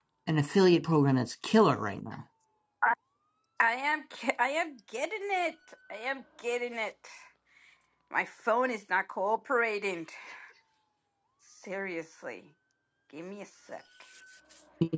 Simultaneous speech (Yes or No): No